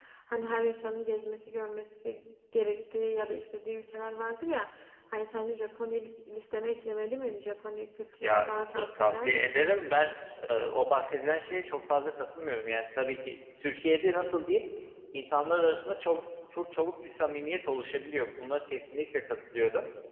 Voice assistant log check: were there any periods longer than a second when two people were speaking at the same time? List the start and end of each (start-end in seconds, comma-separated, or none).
8.2-9.7